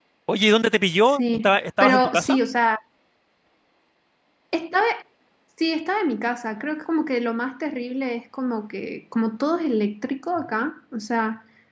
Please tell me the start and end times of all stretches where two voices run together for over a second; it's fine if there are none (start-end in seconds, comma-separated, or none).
1.1-2.4